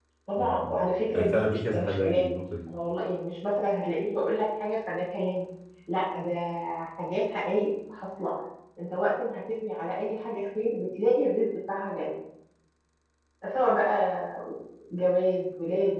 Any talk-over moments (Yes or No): Yes